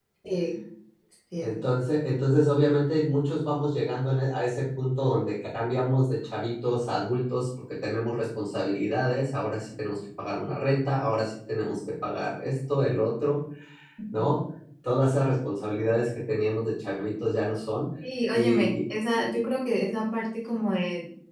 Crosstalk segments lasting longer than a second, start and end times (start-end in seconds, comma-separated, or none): none